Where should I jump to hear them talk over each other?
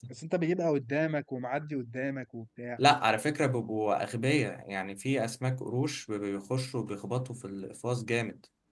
none

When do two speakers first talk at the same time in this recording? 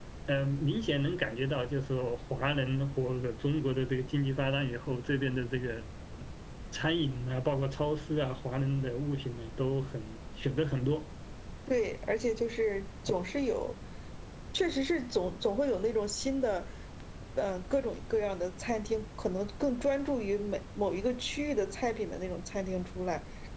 none

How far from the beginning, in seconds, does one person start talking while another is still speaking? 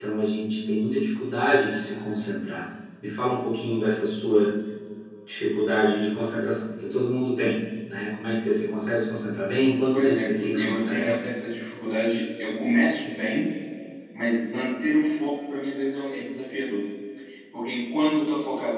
9.9 s

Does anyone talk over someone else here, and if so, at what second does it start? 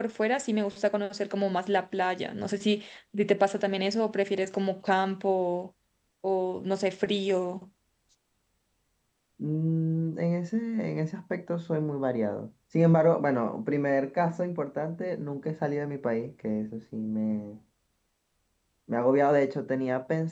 none

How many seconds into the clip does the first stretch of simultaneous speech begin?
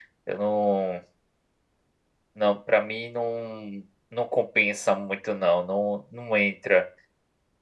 none

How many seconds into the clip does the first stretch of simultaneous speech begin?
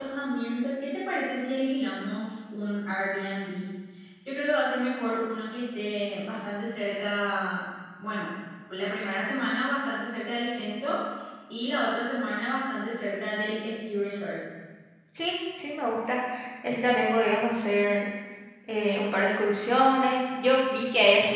none

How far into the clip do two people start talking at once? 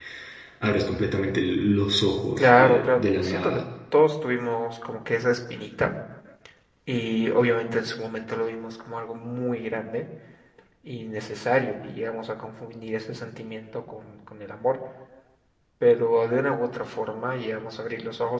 2.4 s

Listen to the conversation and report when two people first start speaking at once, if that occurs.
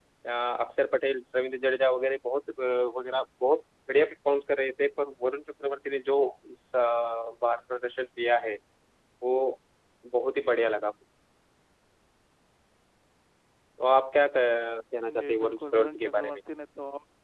15.1 s

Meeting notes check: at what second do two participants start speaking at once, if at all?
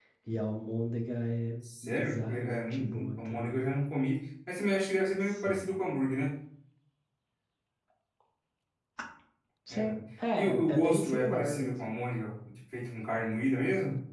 1.8 s

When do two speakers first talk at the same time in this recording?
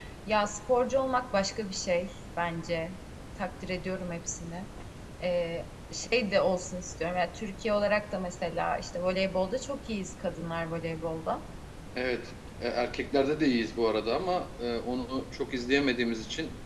none

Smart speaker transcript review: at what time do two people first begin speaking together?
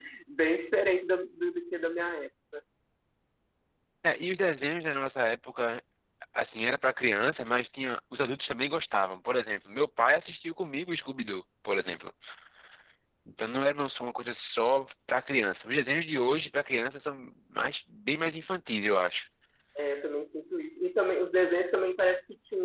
none

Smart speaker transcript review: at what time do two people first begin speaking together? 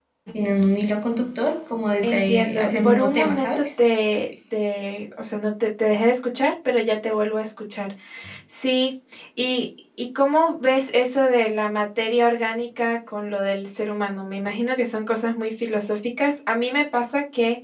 2.0 s

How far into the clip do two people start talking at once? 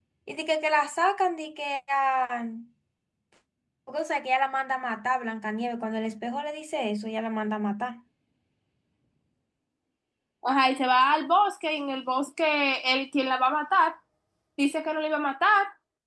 none

